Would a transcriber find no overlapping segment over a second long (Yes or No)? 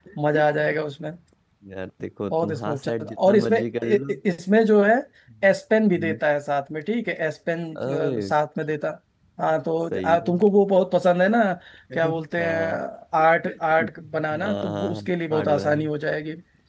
No